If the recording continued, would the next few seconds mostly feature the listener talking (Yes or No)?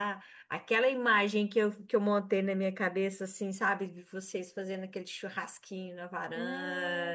Yes